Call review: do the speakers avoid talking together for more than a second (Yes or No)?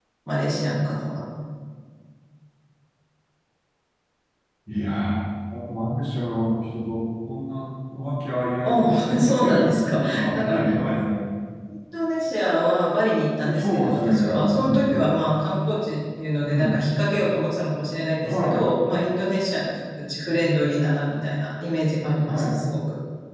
No